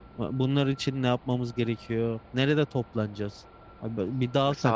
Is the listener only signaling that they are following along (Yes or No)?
No